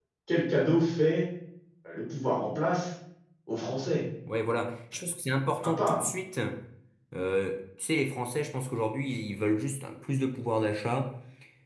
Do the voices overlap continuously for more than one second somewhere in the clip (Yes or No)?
No